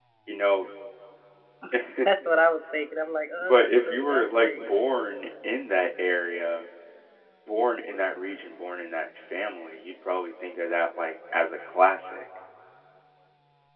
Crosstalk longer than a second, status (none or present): present